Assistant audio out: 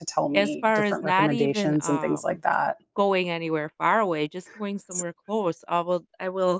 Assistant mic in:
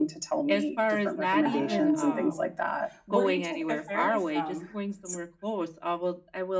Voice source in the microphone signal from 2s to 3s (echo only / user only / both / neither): both